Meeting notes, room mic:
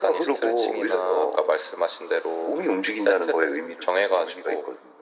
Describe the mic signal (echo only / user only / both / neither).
echo only